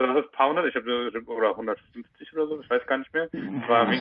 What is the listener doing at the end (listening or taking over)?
listening